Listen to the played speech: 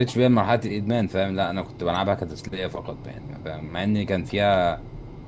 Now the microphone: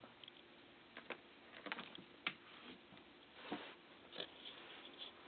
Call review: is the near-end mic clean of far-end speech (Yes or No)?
Yes